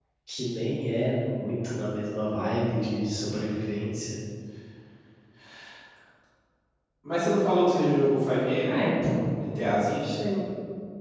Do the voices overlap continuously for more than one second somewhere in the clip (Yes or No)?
No